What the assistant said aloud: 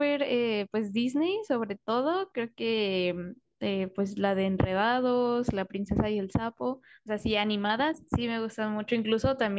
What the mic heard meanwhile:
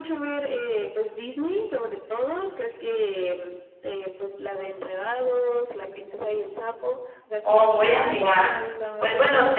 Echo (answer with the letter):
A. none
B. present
B